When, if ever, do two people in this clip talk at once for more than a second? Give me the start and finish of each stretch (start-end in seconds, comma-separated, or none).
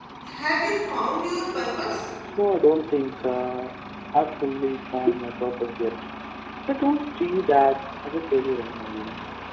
none